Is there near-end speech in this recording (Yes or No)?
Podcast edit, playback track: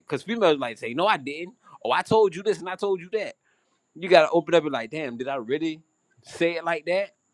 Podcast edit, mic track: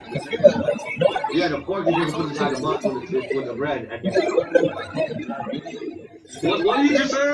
Yes